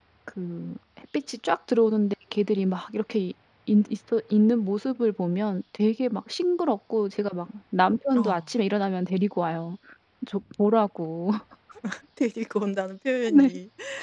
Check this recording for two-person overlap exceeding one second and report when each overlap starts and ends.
none

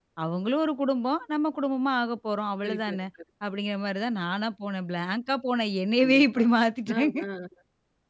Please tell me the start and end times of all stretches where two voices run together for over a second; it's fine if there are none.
none

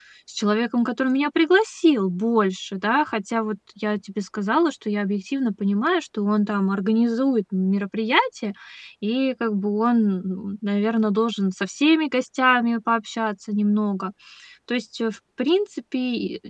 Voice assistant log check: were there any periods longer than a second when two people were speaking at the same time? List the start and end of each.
none

